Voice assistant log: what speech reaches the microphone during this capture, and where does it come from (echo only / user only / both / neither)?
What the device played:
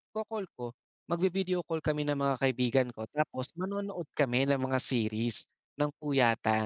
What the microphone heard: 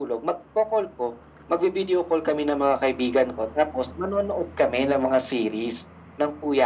echo only